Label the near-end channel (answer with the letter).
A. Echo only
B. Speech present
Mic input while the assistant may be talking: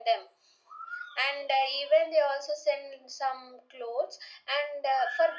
A